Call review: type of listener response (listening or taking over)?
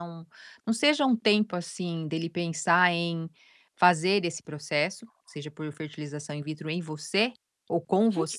taking over